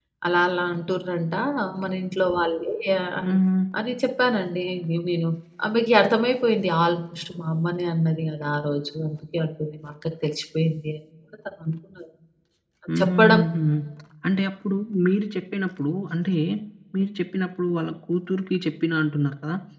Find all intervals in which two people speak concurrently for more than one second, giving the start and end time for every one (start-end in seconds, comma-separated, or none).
none